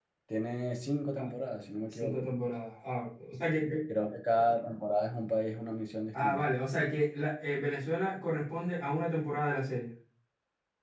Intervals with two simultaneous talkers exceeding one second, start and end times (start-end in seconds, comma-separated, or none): none